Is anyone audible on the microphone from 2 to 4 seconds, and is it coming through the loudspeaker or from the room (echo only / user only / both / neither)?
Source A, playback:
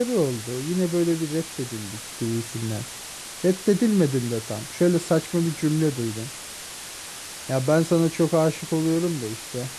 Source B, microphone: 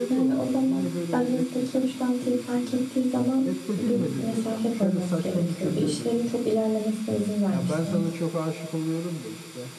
both